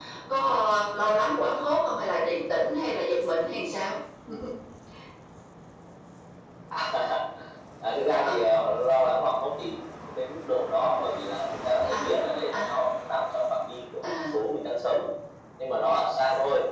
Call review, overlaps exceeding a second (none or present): none